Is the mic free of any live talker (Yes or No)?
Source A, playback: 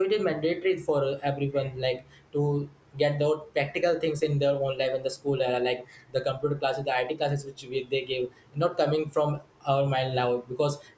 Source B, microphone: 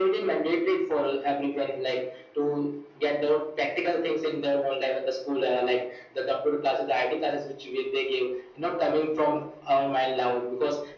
Yes